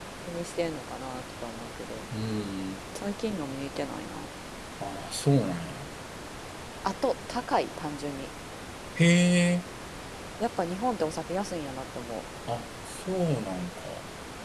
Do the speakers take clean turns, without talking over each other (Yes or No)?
Yes